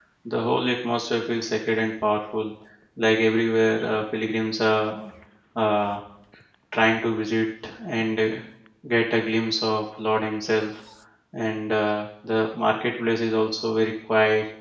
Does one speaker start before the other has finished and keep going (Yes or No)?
No